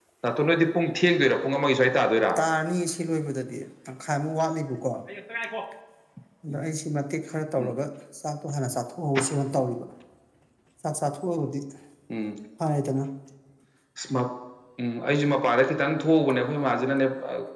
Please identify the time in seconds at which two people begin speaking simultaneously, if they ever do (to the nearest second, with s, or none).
none